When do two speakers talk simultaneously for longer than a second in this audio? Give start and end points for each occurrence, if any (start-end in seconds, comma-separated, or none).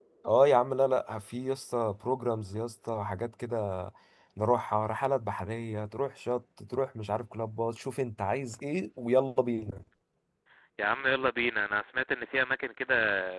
none